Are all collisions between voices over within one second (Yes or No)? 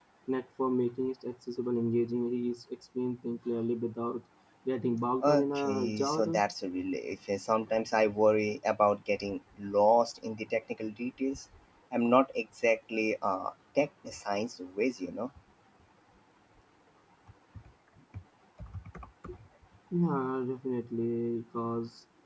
No